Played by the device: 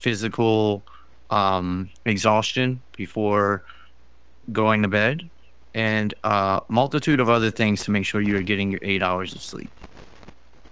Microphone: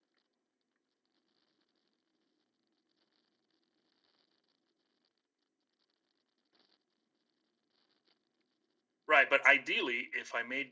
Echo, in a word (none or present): none